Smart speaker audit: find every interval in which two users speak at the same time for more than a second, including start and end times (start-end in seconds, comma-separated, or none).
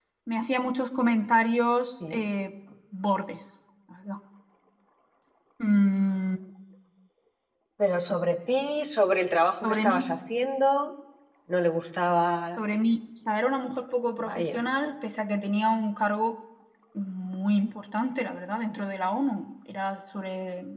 none